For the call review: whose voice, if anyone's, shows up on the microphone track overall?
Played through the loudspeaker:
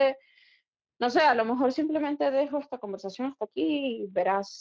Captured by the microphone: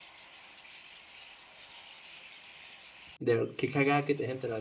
user only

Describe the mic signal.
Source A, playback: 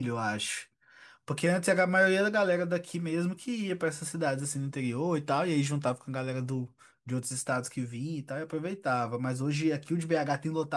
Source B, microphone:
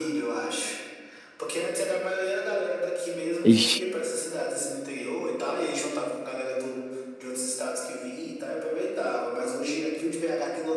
both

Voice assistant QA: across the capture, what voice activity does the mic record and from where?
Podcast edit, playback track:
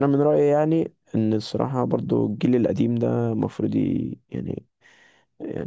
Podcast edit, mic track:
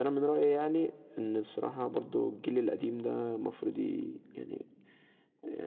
echo only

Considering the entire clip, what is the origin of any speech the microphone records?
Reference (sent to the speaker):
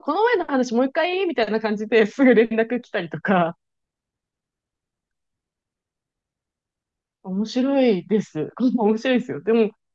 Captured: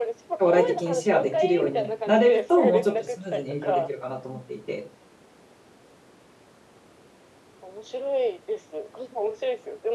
both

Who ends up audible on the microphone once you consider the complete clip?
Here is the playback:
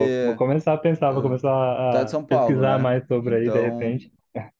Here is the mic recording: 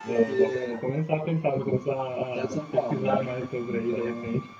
echo only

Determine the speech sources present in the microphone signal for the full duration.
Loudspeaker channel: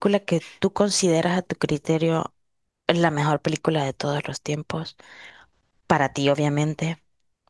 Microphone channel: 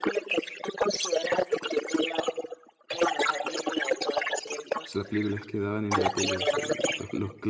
both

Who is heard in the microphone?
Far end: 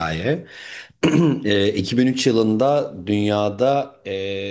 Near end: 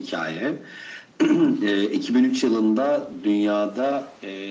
echo only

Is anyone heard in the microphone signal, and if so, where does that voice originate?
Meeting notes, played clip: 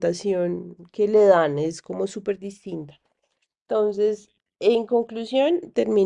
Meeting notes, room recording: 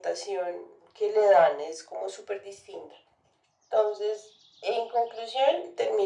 echo only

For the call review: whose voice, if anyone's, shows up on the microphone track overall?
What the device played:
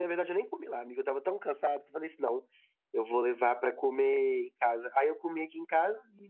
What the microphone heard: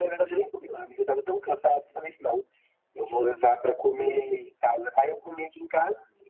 echo only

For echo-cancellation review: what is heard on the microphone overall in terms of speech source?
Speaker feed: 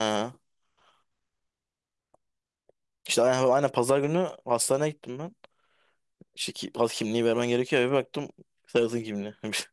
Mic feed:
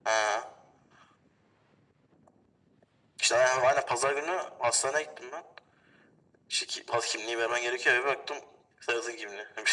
echo only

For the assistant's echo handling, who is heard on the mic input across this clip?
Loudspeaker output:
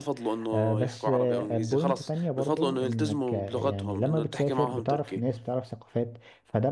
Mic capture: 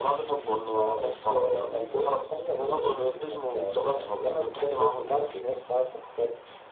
echo only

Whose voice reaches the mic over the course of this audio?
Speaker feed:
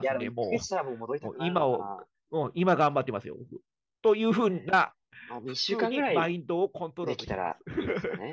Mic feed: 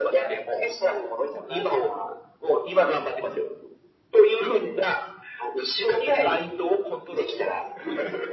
echo only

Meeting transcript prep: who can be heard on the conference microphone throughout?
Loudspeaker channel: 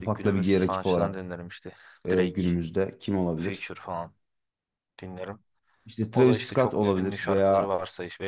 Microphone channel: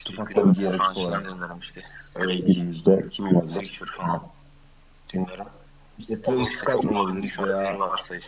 echo only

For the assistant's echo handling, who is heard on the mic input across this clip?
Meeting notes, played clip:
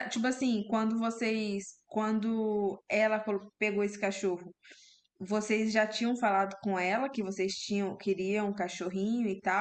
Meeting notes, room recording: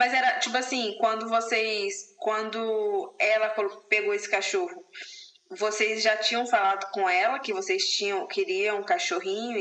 echo only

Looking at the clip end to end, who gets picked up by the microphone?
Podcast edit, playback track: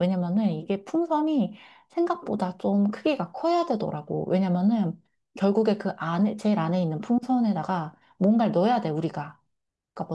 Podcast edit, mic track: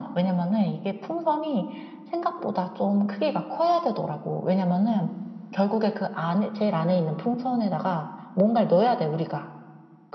echo only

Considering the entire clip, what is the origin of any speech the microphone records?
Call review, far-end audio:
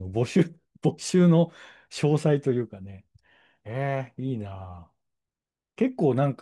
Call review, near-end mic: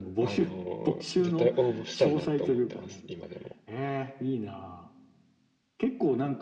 both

